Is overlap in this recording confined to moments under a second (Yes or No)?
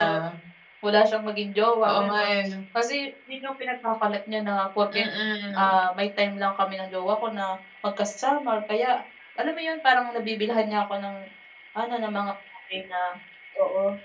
Yes